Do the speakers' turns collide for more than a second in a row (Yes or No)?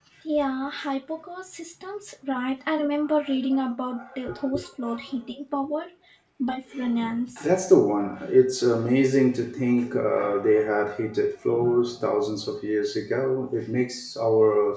No